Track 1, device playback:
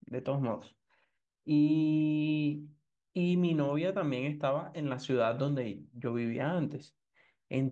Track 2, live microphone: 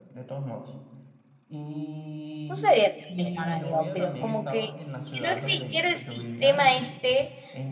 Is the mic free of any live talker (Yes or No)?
No